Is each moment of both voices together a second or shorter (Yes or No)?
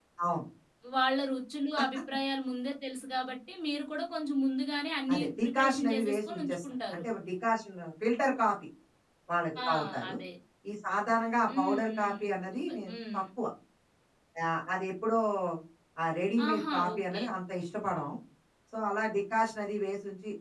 No